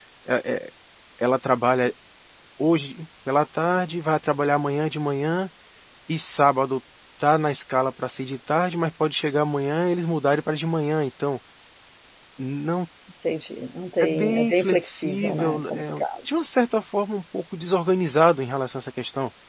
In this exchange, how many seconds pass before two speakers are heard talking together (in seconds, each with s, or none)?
14.0 s